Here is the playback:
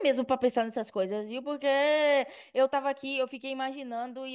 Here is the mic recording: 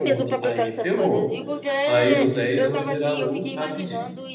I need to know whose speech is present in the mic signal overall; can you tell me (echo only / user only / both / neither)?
both